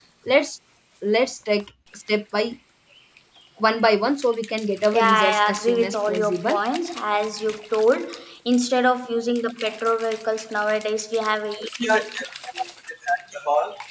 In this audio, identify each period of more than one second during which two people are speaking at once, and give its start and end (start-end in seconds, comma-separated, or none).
4.9-6.6